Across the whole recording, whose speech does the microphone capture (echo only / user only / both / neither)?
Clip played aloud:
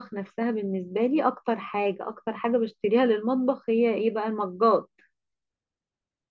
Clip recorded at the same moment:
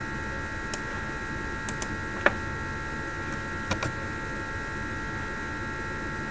neither